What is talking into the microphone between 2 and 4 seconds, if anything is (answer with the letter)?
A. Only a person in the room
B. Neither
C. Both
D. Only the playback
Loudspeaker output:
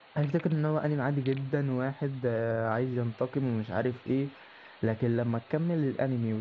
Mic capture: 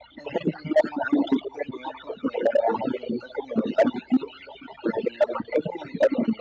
D